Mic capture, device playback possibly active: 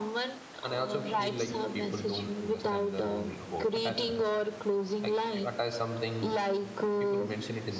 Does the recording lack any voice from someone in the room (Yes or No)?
No